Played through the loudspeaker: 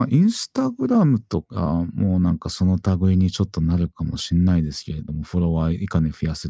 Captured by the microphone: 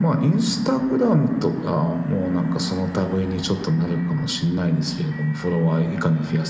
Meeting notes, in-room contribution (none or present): none